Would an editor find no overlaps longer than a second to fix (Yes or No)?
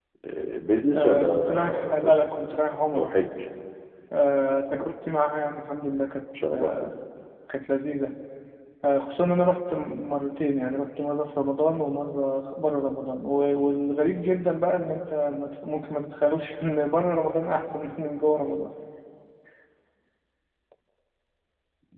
No